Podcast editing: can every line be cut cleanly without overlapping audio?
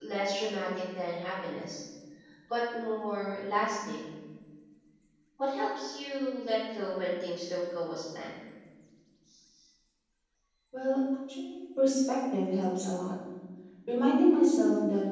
Yes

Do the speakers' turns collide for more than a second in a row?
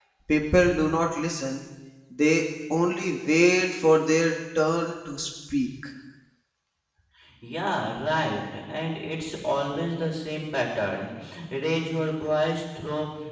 No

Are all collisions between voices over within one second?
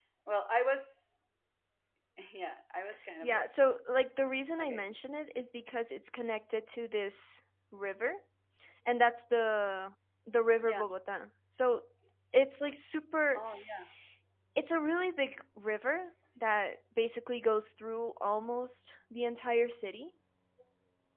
Yes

